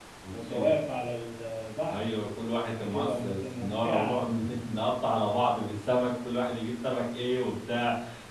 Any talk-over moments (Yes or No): Yes